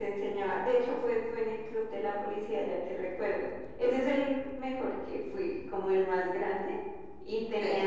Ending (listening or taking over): listening